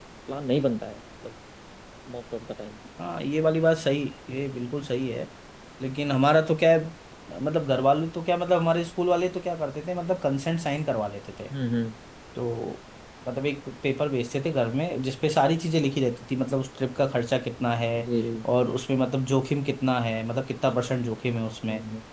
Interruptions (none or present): none